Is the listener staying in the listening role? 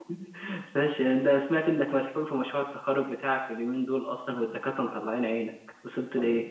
No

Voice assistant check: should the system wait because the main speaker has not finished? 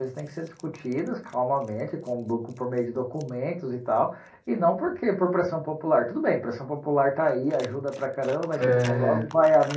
Yes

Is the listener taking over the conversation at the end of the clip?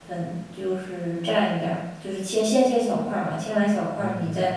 No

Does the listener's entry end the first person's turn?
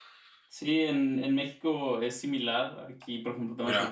No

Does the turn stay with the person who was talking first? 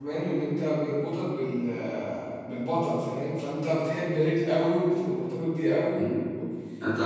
No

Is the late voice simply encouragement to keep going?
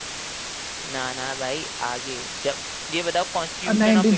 No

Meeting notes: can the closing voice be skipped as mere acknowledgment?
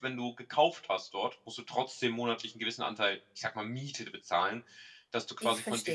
Yes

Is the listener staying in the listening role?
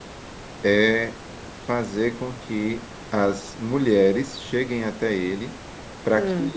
Yes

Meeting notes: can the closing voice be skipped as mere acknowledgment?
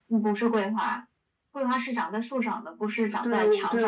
No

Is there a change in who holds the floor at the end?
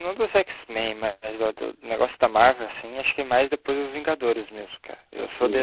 No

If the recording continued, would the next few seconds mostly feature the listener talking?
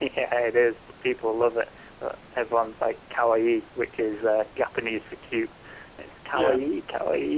No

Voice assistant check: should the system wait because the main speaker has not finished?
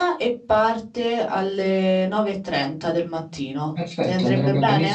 No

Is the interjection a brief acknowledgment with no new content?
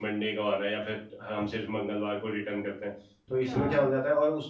Yes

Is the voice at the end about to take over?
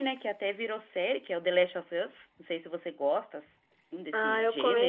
Yes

